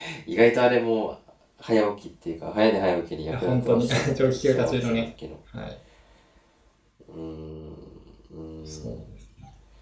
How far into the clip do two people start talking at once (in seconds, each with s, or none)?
3.3 s